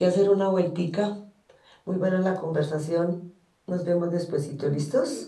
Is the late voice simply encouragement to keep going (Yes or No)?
No